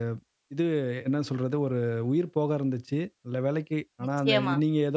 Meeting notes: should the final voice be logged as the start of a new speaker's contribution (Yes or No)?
No